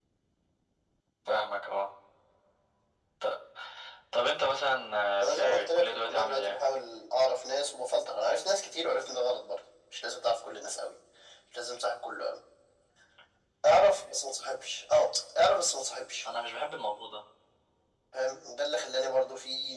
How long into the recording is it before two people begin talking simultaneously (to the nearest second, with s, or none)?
5 s